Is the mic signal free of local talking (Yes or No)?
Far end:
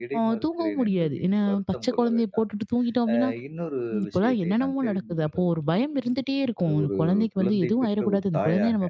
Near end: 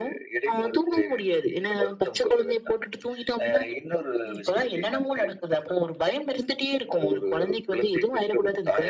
Yes